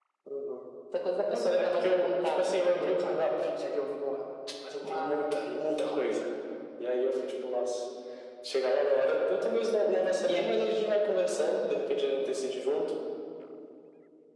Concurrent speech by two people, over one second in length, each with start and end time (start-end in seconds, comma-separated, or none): 1.3-3.0